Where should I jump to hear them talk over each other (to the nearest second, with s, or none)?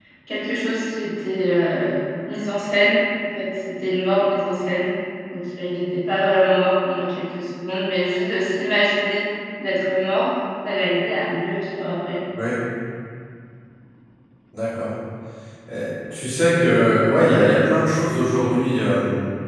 none